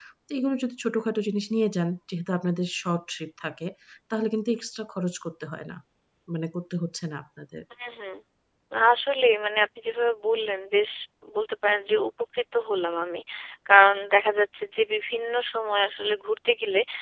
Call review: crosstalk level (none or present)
none